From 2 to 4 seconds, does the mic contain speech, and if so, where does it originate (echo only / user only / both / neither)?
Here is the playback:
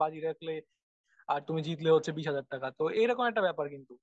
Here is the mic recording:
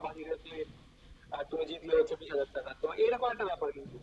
echo only